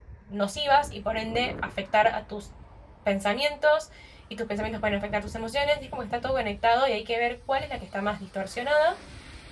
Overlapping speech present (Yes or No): No